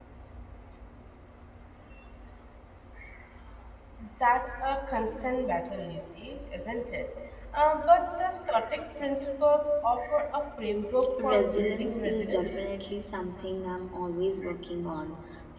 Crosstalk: present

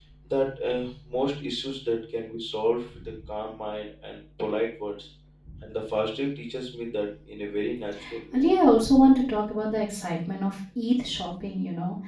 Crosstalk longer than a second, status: none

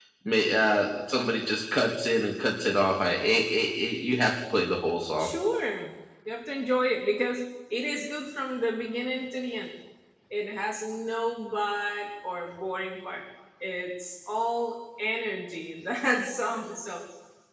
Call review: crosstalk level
none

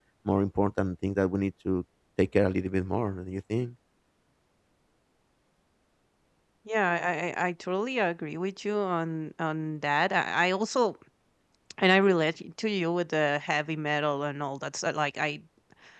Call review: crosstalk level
none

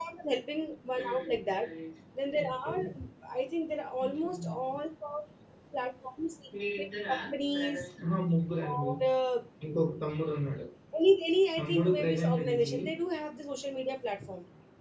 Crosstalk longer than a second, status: present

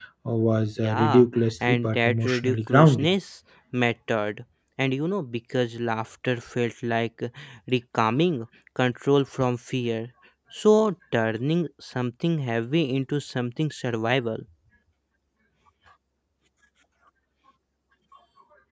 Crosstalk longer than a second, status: present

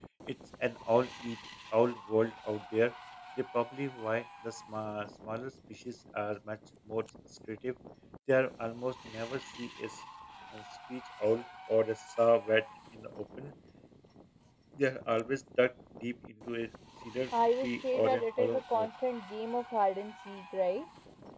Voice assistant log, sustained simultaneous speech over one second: present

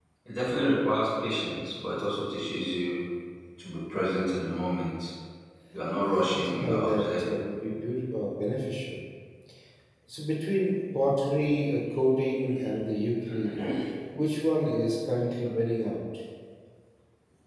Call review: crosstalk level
present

